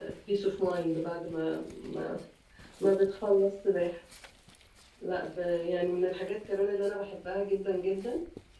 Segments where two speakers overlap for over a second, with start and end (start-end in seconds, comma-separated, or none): none